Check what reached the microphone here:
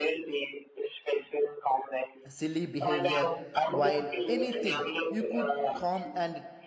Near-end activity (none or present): present